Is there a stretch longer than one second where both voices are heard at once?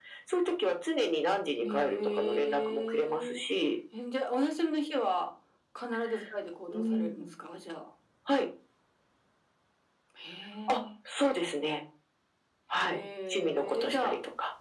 Yes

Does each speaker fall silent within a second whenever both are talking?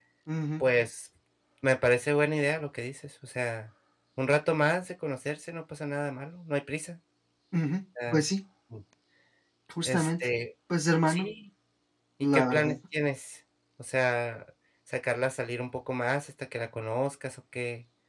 Yes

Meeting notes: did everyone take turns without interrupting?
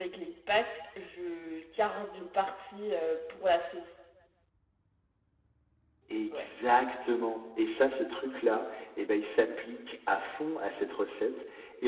Yes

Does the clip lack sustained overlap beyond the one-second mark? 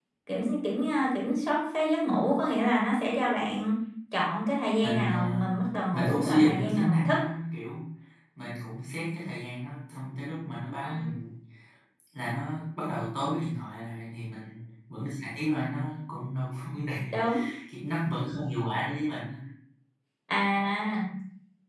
No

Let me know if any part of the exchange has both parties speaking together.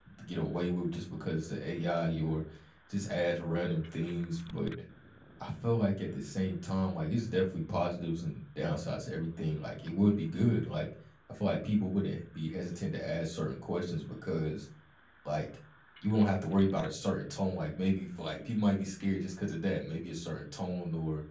No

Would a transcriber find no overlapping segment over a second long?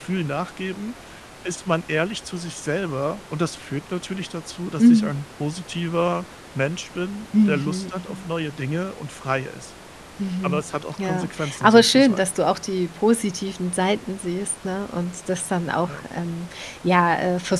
No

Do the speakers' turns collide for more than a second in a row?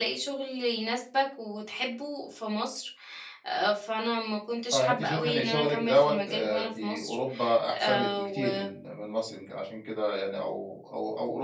Yes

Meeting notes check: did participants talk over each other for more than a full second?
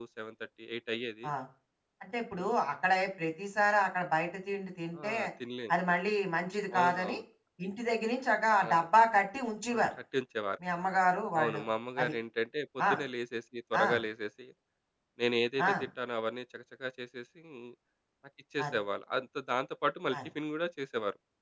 No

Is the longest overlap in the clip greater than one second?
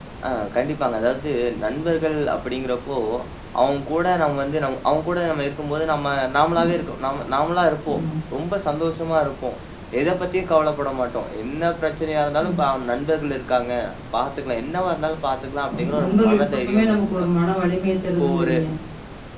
Yes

